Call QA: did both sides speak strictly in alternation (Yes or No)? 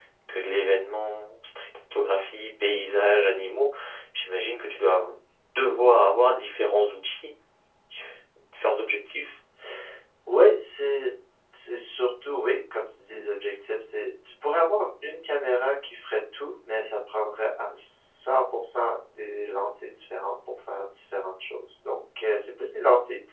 Yes